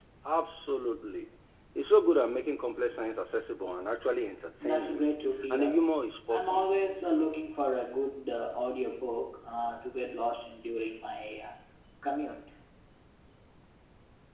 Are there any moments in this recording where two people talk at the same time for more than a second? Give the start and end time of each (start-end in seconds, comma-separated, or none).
none